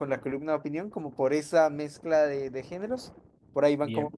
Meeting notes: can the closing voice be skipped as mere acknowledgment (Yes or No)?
Yes